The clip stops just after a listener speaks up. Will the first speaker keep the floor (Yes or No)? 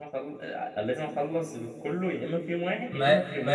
No